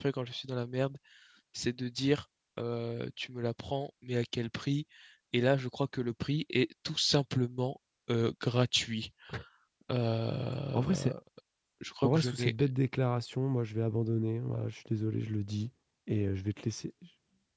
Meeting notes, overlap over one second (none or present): none